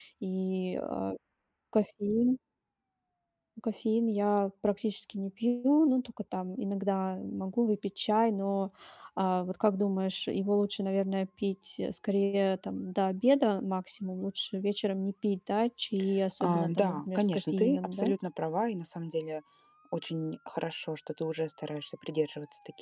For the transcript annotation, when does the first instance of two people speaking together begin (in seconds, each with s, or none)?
16.4 s